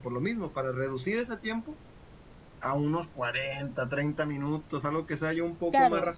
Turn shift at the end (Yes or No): Yes